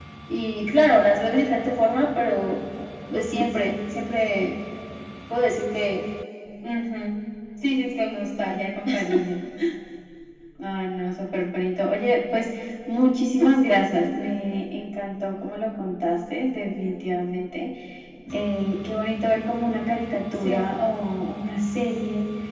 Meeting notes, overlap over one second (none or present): none